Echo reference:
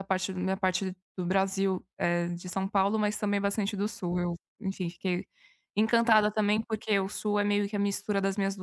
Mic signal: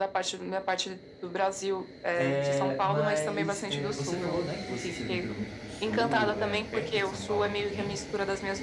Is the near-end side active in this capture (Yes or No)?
Yes